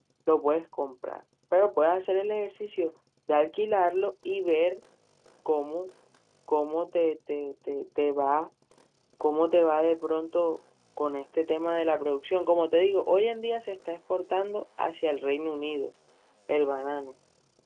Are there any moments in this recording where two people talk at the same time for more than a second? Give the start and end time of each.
none

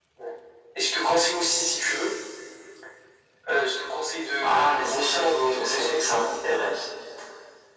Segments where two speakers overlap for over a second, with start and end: 4.4-5.9

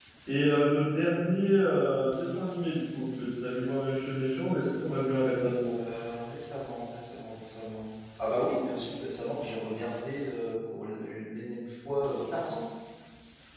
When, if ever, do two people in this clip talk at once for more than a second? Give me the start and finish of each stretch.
none

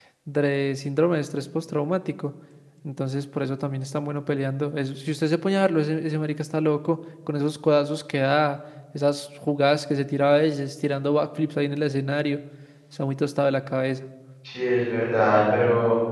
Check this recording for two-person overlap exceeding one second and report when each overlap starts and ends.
none

